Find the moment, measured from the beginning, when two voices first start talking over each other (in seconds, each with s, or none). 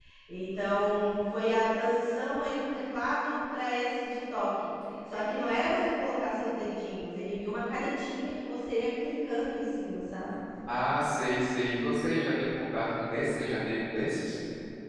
none